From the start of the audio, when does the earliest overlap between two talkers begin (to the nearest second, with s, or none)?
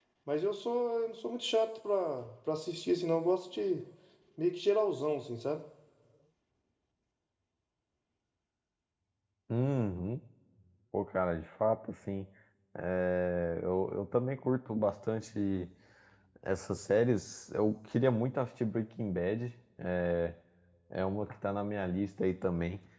none